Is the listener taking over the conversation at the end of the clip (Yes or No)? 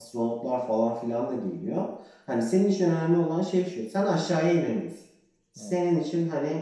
No